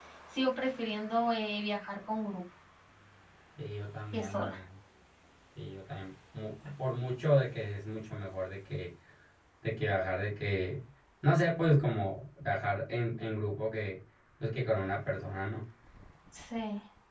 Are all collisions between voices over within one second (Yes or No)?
Yes